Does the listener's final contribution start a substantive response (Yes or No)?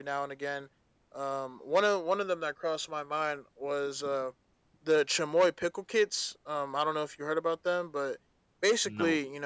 No